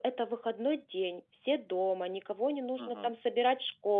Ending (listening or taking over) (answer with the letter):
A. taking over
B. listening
B